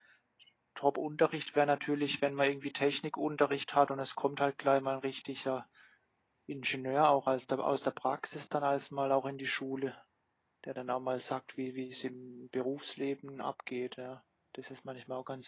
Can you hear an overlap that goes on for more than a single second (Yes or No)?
No